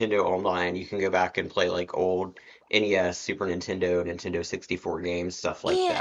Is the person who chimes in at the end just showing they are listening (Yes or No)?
No